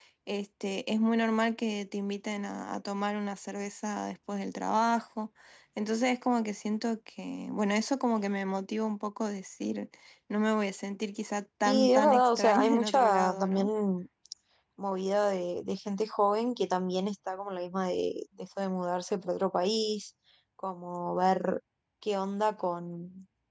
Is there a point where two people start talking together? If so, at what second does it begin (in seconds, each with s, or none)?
11.6 s